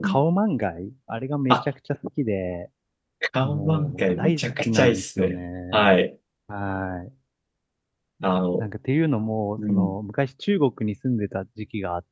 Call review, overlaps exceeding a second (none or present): present